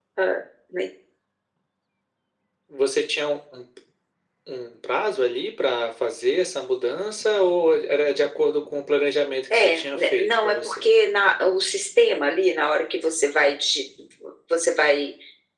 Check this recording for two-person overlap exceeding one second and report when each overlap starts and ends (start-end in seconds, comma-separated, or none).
9.5-10.8